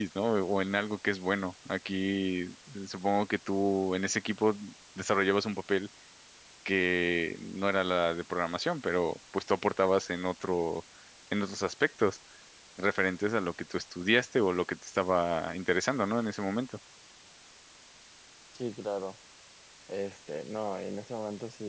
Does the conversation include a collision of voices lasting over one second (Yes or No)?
No